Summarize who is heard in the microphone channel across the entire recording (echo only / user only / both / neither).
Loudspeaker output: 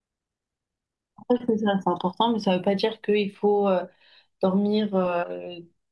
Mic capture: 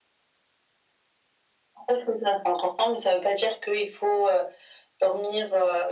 echo only